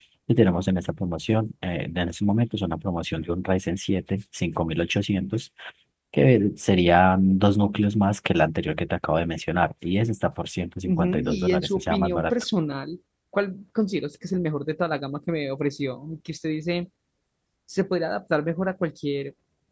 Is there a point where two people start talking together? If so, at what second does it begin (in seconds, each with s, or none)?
10.8 s